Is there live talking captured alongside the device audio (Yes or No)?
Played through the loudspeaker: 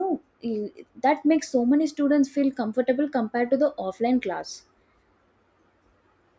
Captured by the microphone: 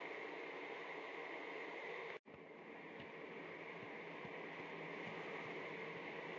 No